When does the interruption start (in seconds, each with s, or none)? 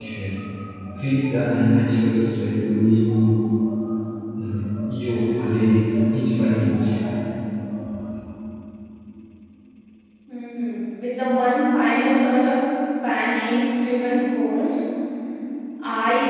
none